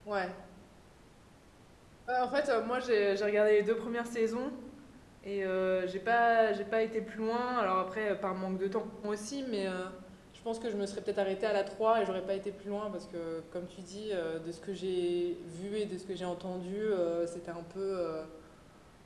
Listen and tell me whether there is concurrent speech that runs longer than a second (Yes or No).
No